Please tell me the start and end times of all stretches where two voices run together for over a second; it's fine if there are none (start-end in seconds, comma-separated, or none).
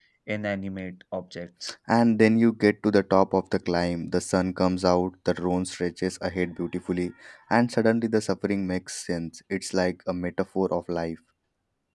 none